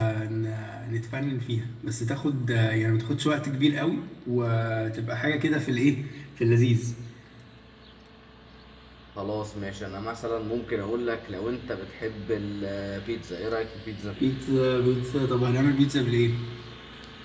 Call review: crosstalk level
none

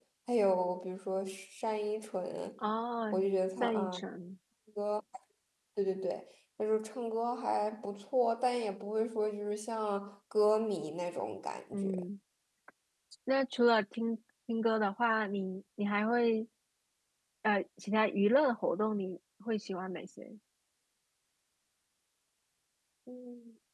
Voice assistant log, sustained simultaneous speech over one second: none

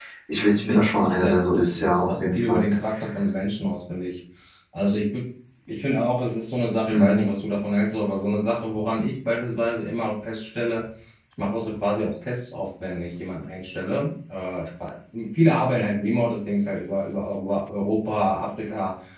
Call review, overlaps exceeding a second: present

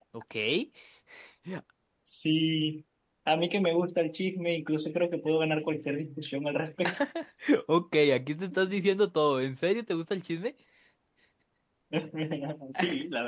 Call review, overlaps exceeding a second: none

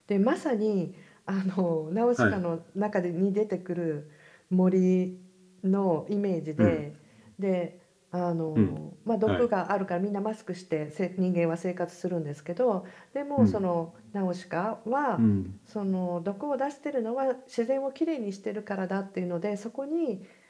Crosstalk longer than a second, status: none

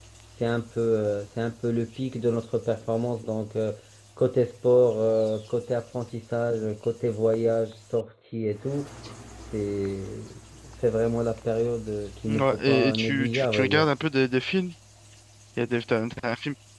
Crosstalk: present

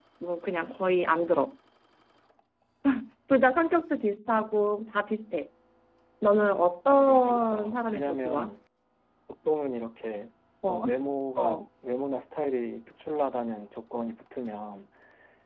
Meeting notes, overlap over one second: present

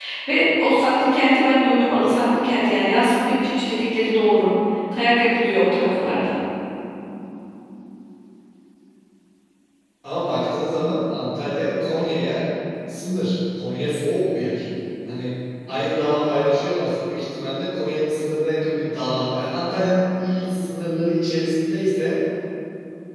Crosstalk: none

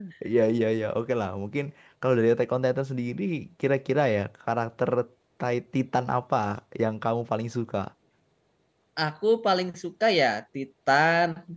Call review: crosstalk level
none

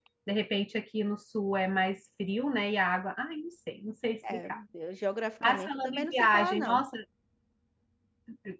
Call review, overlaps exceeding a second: present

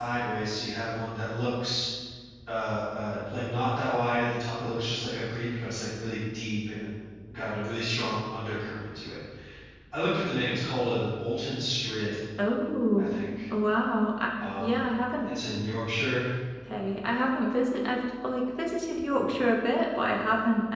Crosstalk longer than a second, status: none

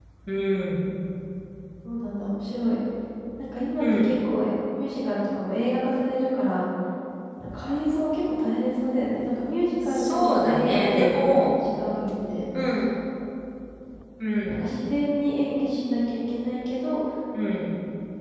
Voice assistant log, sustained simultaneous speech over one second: present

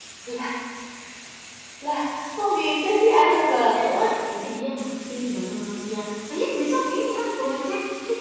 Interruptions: present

